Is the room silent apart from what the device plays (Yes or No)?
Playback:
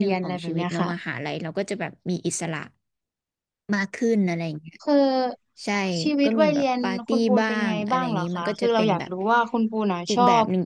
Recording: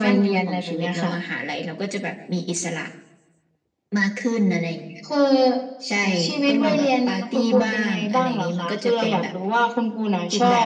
Yes